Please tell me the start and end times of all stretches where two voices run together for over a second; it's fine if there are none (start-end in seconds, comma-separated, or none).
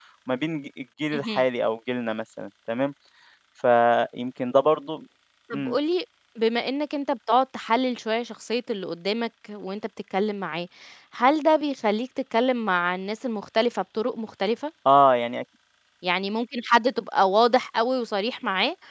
none